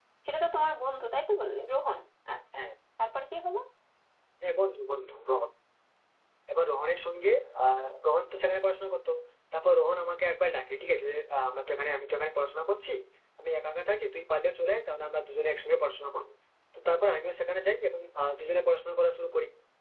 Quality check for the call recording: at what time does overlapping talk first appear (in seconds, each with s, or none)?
none